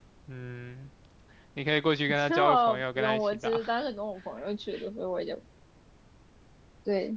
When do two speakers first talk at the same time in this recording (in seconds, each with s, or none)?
2.3 s